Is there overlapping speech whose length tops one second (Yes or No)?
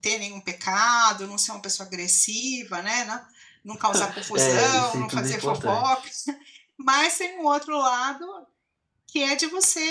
Yes